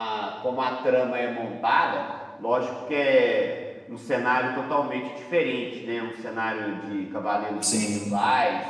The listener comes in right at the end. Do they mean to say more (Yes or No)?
No